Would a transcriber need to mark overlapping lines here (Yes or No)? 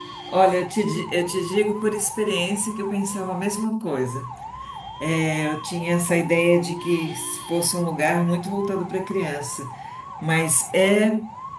No